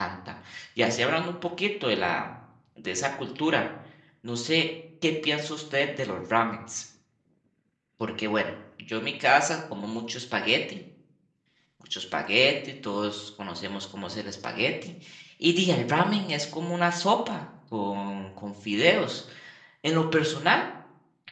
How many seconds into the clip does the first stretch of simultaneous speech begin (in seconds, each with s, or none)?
none